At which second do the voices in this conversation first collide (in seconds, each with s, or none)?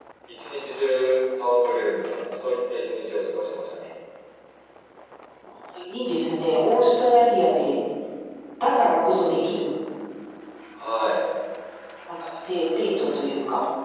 none